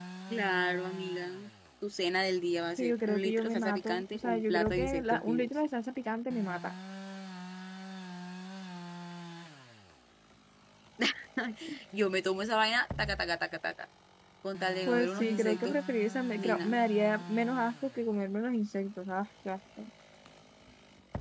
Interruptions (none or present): present